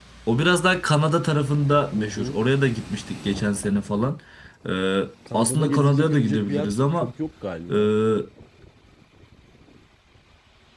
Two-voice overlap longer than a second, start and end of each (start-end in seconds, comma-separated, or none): 5.3-7.1